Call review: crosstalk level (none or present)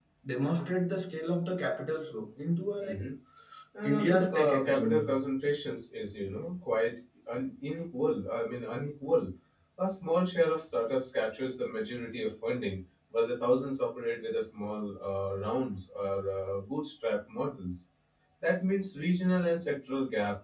present